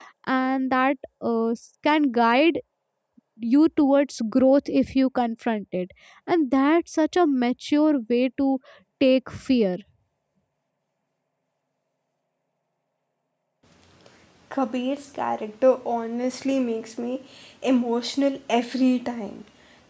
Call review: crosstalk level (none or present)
none